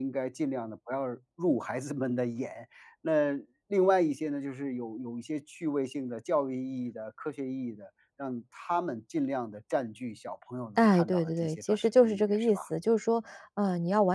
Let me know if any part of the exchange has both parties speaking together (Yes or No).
Yes